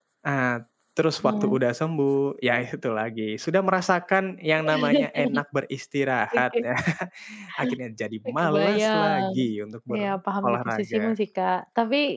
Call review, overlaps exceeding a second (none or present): present